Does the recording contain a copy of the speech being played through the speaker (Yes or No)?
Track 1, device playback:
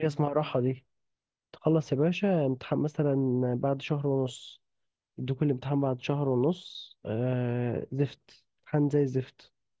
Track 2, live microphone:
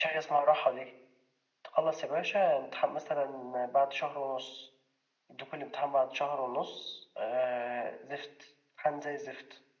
Yes